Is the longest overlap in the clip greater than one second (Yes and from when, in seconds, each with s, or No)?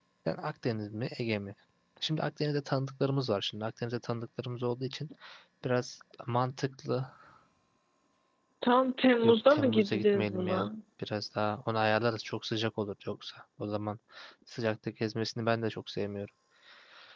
Yes, from 9.2 s